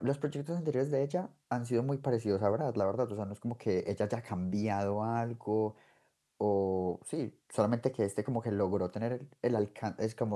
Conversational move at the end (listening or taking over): listening